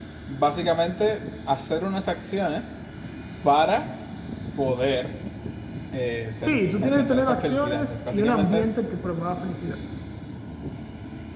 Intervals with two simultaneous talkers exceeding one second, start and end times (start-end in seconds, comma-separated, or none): 6.5-8.6